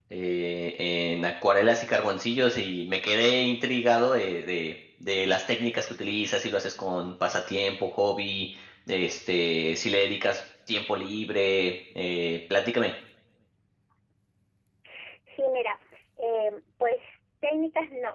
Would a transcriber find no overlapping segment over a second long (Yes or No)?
Yes